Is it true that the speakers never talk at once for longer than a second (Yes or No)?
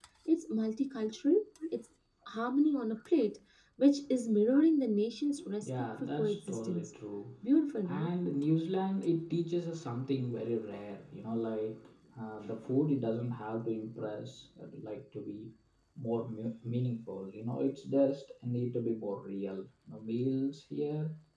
No